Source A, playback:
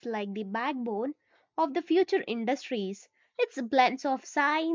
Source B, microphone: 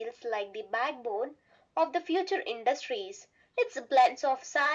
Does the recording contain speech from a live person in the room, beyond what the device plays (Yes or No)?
No